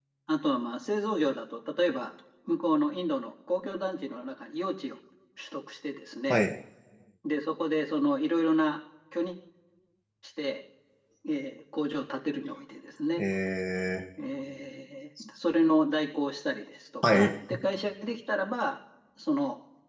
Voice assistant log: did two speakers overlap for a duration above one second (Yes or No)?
No